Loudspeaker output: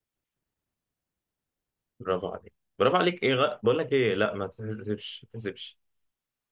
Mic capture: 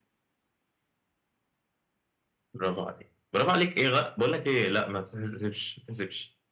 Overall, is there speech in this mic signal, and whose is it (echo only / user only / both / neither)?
echo only